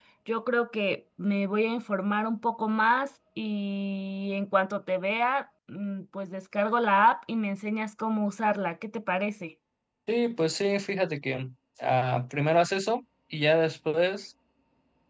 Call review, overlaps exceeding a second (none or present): none